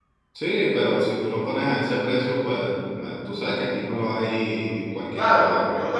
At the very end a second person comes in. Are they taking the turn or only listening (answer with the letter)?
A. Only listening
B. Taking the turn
B